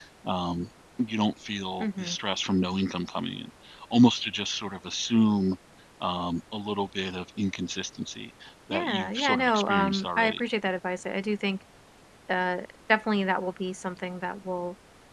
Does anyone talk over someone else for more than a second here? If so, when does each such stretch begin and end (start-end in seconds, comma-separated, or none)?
8.7-10.4